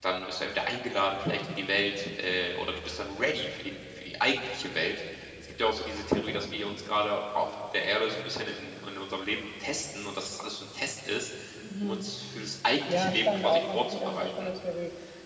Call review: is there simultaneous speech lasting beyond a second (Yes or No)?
Yes